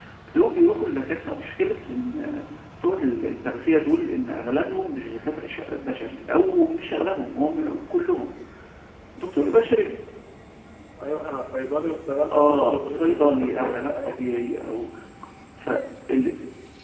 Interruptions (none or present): present